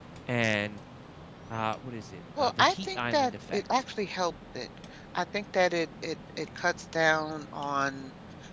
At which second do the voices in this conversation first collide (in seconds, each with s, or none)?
2.4 s